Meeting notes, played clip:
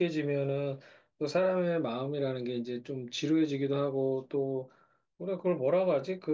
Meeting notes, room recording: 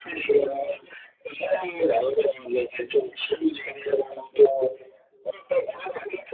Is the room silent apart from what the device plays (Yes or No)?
Yes